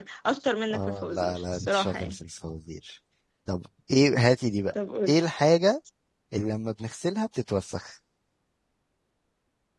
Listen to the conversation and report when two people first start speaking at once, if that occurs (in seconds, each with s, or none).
0.7 s